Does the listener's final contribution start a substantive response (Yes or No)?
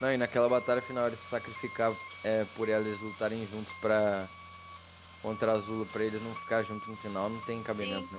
Yes